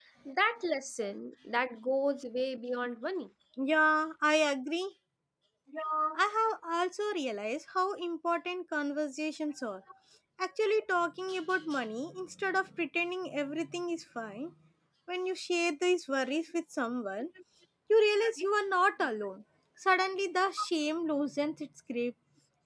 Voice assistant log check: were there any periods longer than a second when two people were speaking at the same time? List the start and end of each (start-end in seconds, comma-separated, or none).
none